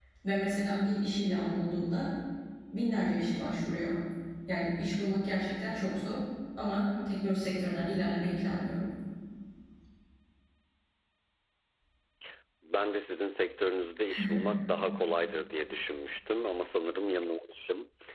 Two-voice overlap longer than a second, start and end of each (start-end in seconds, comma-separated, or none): none